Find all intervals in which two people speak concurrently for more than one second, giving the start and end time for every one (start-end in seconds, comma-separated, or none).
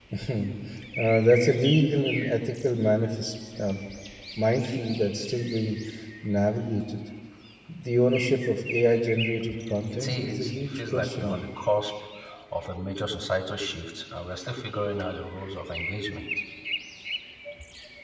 9.8-11.4